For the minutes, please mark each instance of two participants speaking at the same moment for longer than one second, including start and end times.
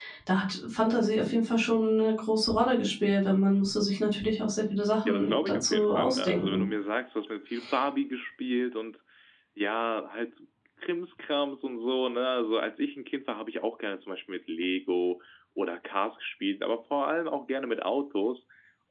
5.1-6.7

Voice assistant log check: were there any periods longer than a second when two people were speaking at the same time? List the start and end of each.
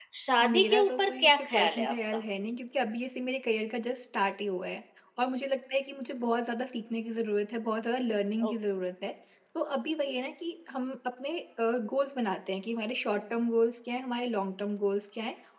0.5-2.2

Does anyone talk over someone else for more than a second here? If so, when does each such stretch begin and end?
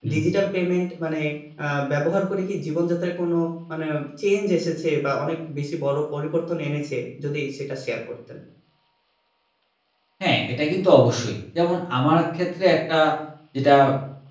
none

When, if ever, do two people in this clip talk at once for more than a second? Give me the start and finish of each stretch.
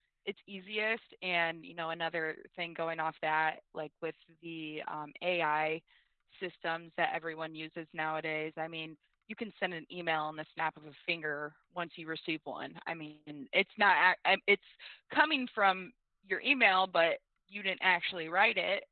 none

